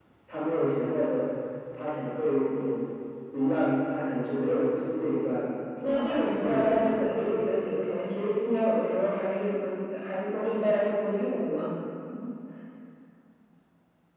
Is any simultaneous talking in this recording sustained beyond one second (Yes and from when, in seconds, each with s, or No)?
Yes, from 5.8 s